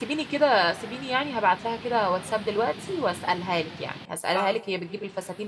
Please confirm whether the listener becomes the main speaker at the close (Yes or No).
No